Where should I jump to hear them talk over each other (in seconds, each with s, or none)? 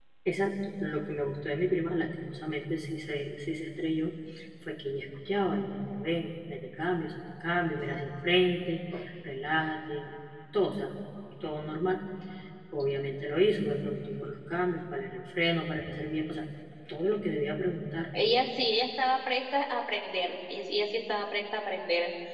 none